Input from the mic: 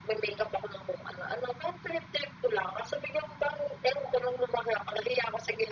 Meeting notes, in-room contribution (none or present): none